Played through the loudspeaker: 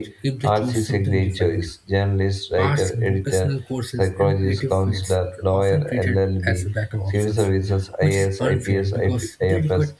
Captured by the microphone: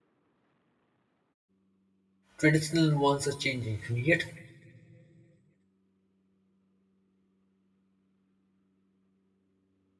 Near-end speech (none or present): present